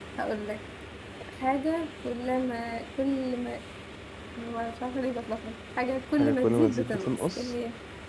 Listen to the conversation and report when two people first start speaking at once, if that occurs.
6.2 s

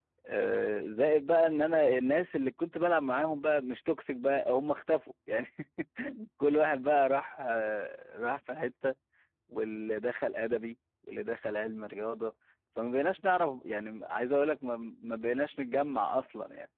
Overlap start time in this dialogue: none

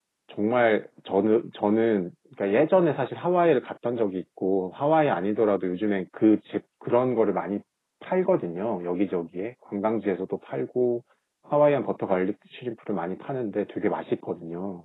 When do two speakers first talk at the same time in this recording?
none

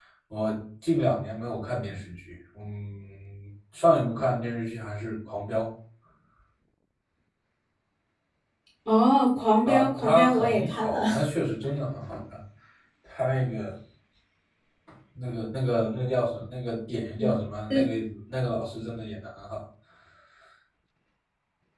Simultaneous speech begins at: 9.7 s

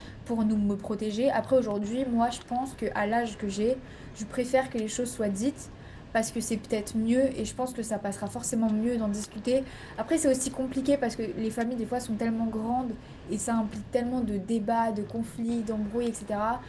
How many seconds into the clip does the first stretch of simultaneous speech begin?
none

